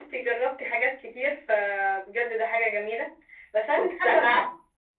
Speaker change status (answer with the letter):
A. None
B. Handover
A